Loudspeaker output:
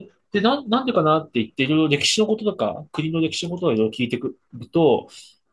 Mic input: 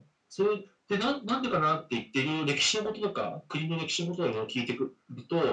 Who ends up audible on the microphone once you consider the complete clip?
echo only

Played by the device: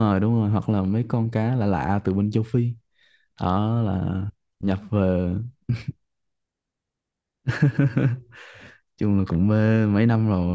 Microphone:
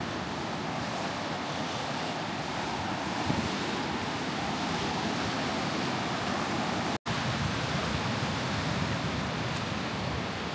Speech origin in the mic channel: neither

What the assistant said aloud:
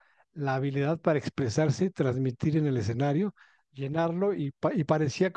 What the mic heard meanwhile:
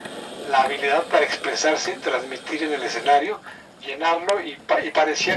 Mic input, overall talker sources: echo only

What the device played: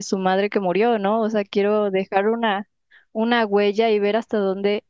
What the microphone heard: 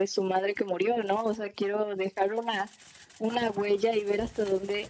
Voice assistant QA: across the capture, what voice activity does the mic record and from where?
echo only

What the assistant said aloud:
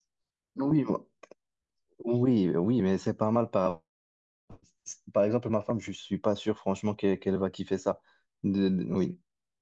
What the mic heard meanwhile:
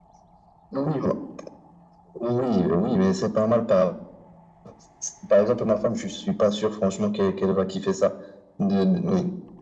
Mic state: echo only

